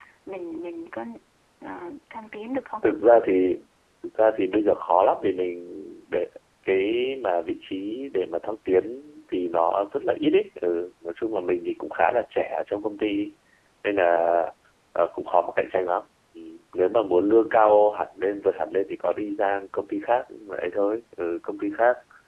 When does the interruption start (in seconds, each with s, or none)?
none